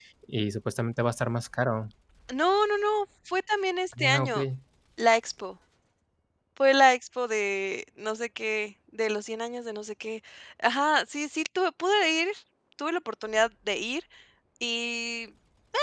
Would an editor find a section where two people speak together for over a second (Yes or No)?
No